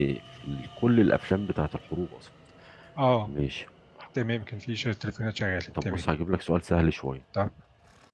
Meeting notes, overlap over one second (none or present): none